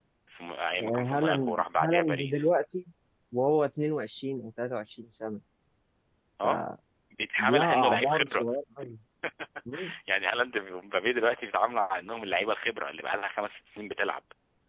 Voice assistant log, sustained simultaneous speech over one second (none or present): present